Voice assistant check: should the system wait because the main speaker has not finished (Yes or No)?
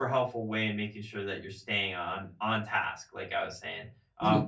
Yes